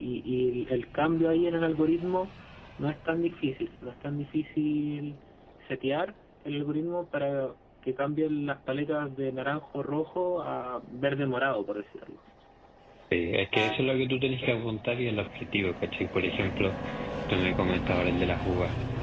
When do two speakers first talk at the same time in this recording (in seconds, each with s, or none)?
none